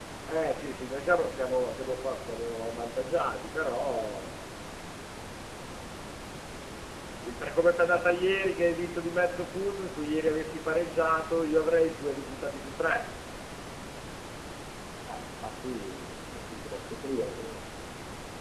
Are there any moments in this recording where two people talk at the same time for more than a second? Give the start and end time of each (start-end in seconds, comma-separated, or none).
none